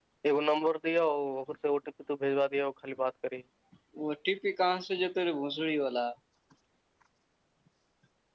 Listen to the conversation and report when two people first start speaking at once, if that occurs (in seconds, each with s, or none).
none